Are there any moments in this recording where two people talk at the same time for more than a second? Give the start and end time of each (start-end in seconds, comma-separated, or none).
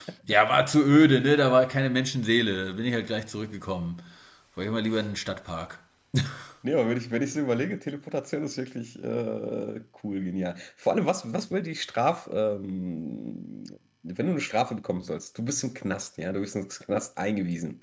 none